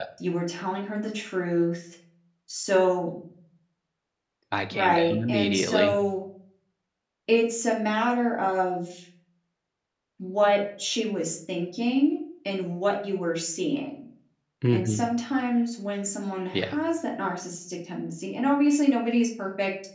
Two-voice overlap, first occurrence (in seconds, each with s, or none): 4.7 s